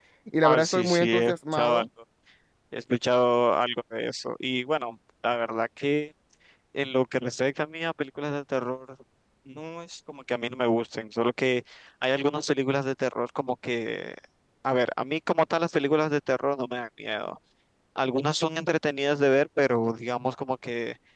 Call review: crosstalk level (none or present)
present